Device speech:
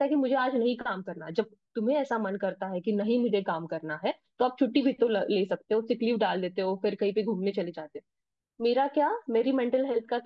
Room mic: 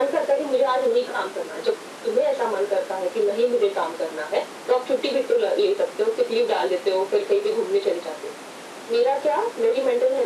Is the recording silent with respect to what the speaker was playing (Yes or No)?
No